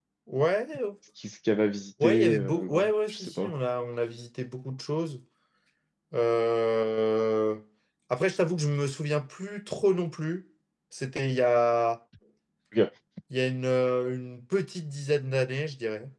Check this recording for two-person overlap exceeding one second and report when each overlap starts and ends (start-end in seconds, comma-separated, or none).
2.0-3.5